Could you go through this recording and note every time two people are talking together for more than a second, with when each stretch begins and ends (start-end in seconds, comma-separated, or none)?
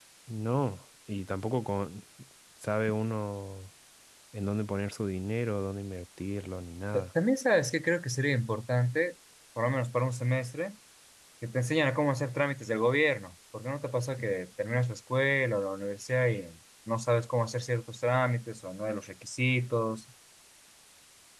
none